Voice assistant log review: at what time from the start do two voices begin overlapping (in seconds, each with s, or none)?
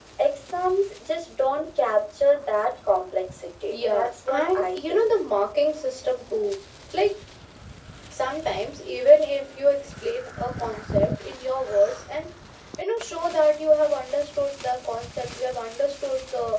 3.7 s